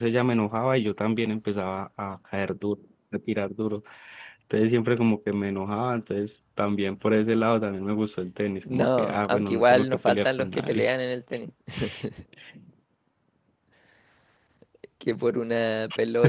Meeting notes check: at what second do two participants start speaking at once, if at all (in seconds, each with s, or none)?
8.6 s